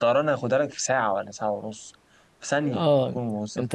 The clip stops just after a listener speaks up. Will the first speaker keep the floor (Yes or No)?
No